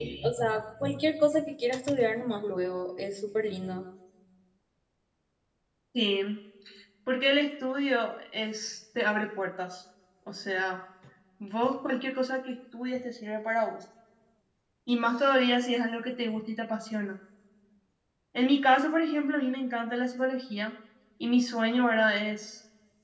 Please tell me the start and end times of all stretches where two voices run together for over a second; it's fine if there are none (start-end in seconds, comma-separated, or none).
none